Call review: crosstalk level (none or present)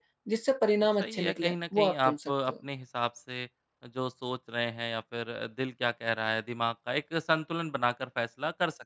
present